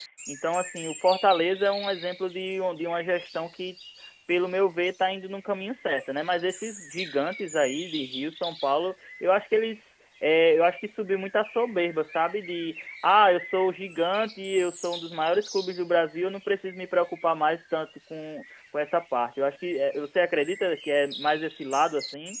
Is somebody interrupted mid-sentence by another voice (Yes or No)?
No